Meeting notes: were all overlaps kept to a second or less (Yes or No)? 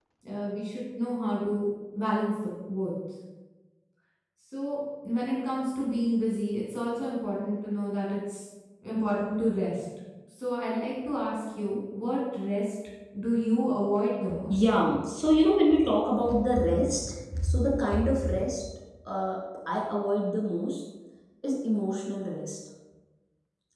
Yes